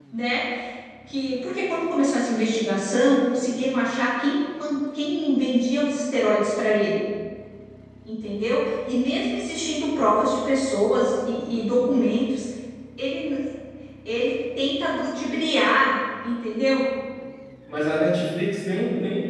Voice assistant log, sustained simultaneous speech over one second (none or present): none